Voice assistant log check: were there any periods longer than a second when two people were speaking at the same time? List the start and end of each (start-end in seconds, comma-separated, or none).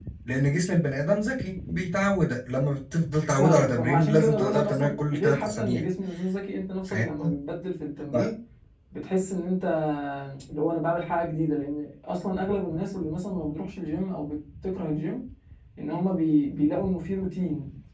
3.4-5.8